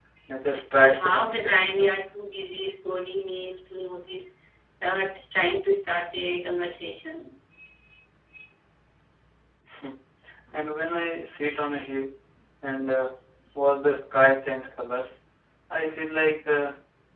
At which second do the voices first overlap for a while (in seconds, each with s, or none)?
0.8 s